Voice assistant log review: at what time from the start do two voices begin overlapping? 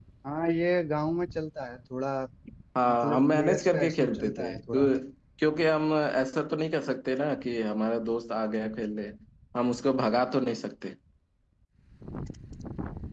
3 s

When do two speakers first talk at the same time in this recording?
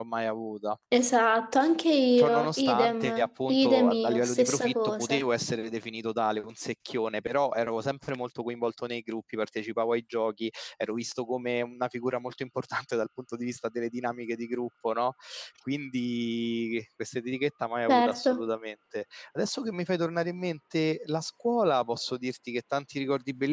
2 s

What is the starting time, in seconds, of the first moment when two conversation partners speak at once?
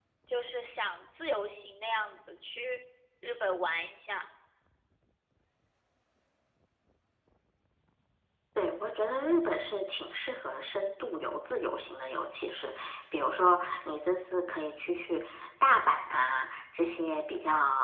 none

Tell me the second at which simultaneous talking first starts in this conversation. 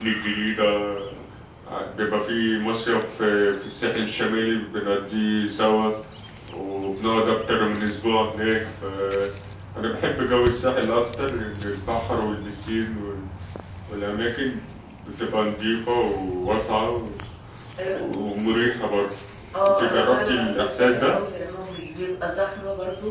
20 s

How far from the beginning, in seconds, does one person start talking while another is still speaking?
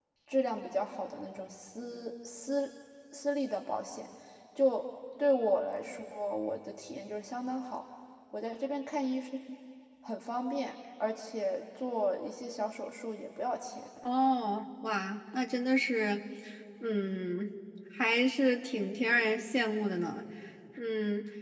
none

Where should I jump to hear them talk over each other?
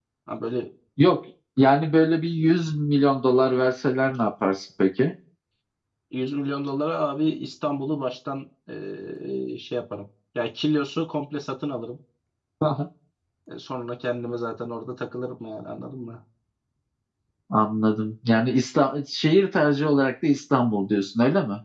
none

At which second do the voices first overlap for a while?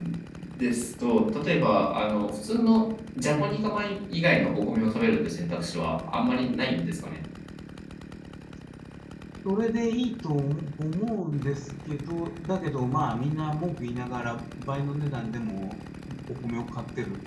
none

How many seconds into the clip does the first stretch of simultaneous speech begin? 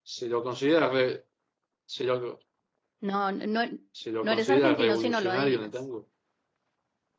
4 s

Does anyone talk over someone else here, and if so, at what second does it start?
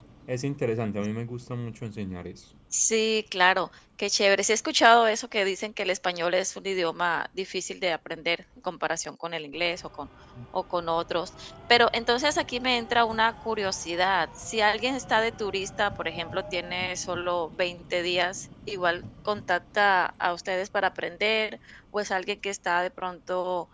none

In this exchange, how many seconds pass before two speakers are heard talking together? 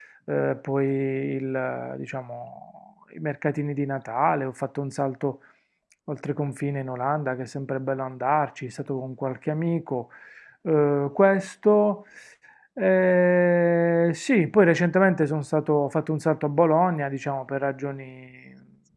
none

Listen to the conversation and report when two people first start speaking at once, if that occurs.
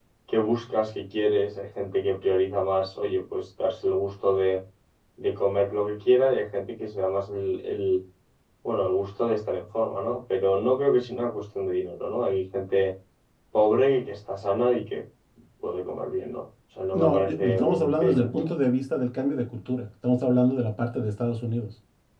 17 s

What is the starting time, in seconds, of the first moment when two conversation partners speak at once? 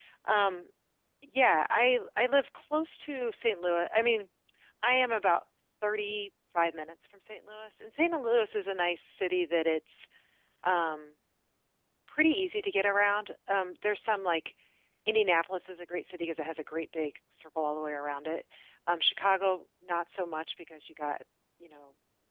none

